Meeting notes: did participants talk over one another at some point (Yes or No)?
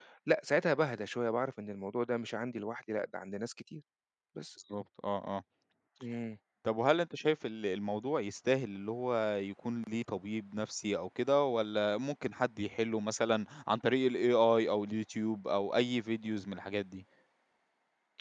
No